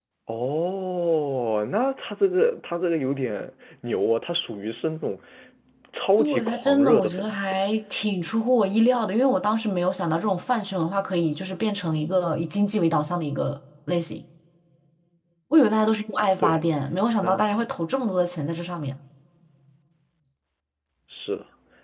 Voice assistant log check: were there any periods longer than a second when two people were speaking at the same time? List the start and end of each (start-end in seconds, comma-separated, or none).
6.2-7.6